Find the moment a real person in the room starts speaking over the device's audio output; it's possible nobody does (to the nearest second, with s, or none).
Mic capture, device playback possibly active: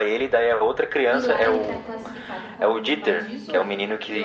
1 s